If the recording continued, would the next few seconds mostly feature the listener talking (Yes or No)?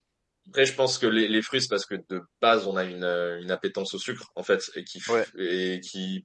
No